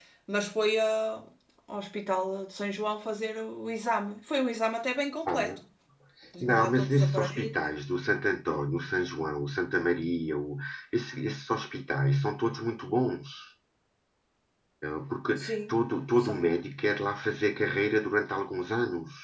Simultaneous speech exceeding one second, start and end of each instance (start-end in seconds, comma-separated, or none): 6.4-7.6